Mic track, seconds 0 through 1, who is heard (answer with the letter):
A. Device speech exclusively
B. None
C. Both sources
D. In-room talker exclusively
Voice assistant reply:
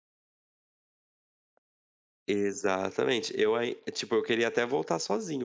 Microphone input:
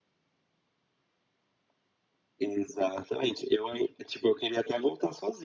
B